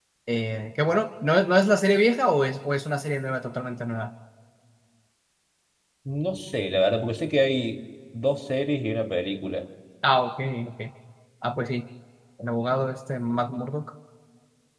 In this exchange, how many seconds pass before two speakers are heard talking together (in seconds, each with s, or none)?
none